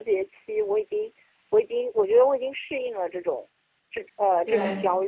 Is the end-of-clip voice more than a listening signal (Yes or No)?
No